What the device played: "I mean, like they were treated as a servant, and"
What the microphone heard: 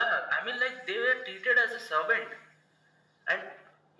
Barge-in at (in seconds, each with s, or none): none